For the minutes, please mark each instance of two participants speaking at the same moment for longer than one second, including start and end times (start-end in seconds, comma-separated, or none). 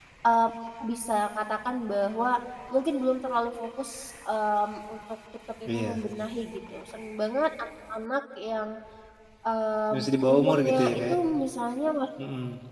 9.9-11.2